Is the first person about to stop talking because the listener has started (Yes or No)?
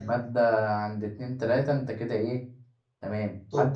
No